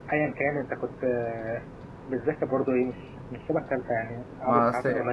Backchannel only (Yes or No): No